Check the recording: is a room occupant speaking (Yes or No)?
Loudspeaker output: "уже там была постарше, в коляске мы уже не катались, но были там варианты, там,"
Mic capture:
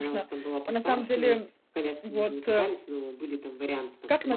Yes